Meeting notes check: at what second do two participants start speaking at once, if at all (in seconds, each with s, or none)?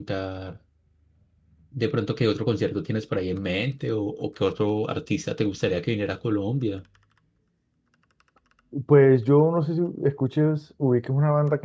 none